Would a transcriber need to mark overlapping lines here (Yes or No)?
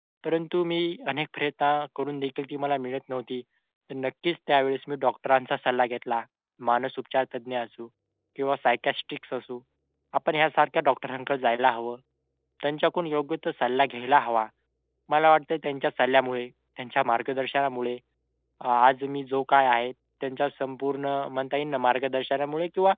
No